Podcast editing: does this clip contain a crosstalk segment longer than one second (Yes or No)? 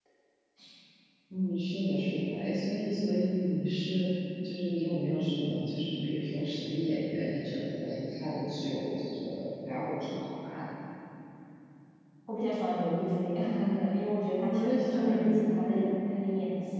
Yes